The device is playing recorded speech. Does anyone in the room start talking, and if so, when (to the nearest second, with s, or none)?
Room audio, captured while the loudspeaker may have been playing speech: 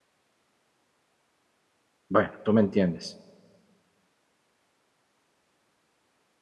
2 s